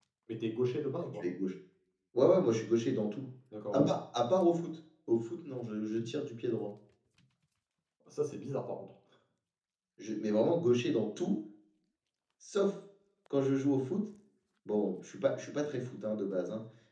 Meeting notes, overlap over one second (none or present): none